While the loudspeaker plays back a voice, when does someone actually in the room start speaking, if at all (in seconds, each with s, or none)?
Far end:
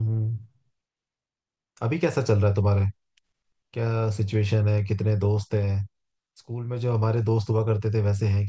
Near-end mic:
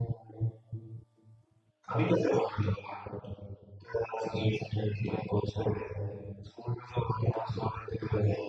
none